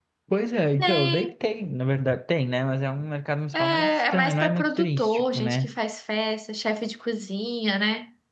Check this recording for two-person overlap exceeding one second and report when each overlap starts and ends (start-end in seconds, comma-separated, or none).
3.5-5.7